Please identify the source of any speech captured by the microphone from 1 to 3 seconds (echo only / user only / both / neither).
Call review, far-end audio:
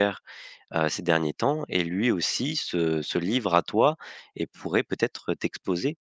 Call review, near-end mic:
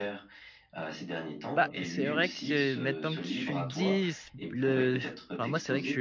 both